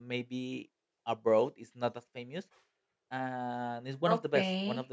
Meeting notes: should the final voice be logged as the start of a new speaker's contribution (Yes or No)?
Yes